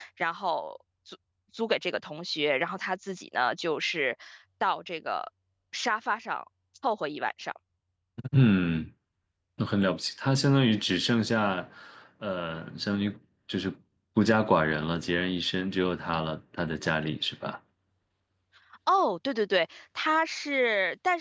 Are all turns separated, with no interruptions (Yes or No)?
Yes